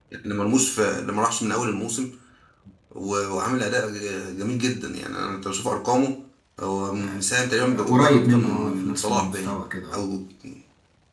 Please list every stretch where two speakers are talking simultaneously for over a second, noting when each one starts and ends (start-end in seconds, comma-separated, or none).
7.8-9.6